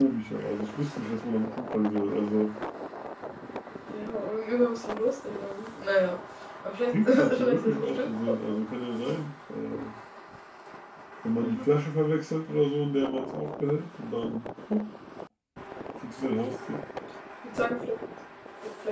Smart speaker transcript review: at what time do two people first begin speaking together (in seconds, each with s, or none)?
6.9 s